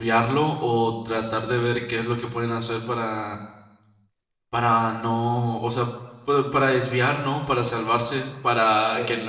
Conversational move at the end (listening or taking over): listening